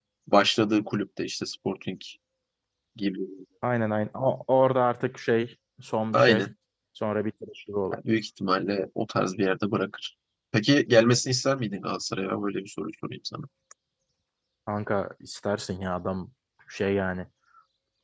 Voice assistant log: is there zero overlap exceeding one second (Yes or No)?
Yes